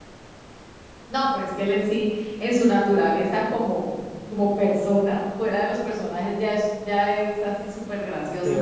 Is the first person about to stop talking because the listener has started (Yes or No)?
Yes